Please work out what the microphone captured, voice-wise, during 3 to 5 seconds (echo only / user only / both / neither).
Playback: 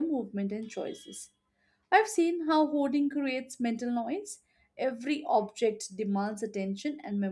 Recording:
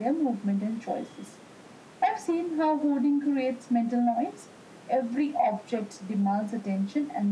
echo only